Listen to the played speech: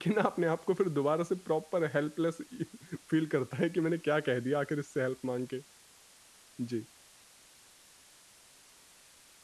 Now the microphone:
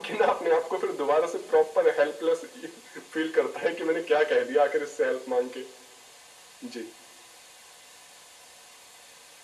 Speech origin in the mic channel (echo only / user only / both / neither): echo only